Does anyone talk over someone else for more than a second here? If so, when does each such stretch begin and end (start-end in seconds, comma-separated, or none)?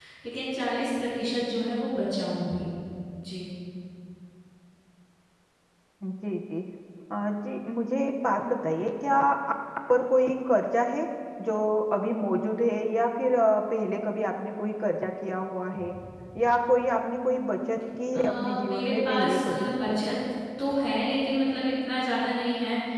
18.1-19.7